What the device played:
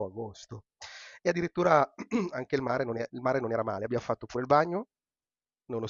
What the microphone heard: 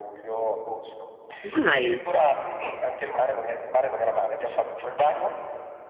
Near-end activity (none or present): present